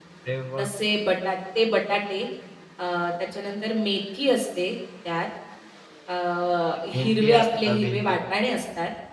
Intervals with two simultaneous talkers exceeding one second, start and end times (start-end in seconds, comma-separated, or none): 7.0-8.2